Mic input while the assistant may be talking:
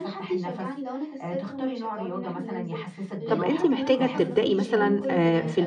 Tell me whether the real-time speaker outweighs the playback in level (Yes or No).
Yes